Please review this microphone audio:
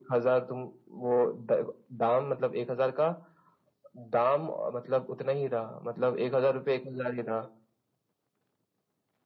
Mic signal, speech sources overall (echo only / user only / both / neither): echo only